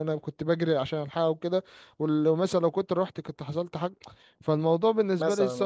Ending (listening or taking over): listening